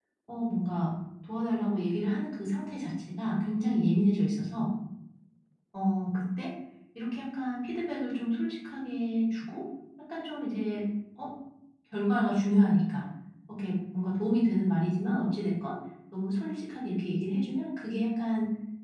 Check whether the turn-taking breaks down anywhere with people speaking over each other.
No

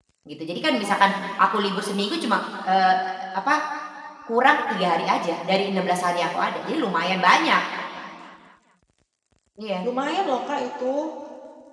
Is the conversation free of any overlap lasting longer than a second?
Yes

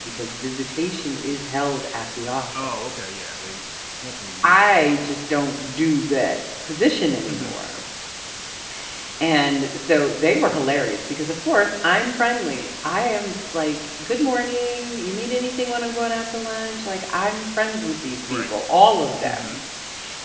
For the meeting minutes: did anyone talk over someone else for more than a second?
No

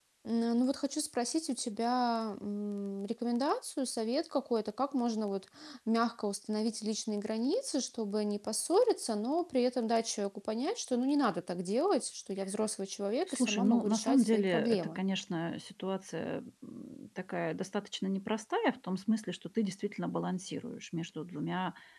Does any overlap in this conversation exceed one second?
Yes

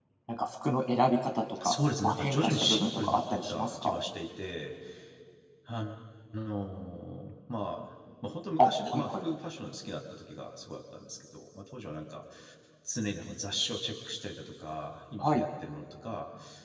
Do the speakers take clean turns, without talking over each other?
No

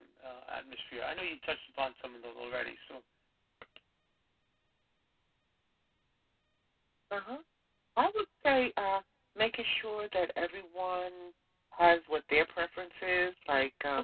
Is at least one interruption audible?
No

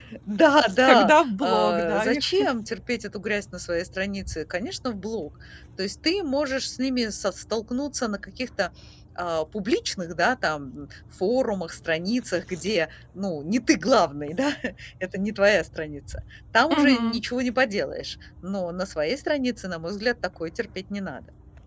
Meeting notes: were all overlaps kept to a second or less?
No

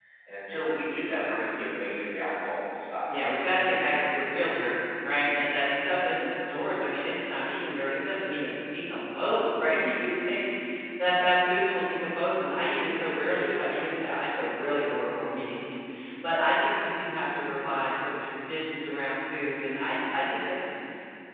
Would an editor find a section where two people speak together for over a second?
No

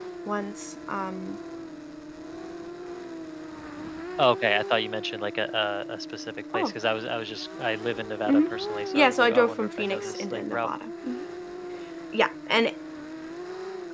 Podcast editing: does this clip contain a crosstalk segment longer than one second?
Yes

